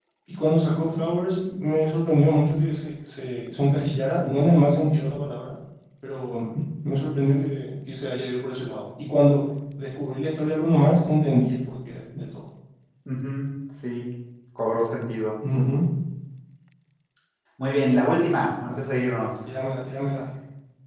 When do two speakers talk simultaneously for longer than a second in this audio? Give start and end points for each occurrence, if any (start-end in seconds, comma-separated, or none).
none